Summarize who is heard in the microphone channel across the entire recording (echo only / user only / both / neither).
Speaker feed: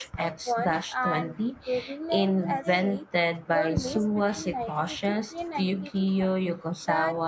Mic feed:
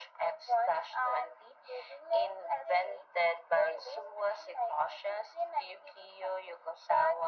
echo only